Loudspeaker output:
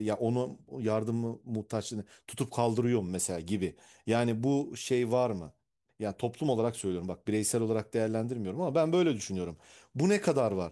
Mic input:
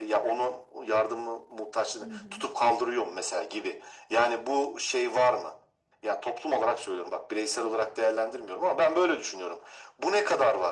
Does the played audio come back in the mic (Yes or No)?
Yes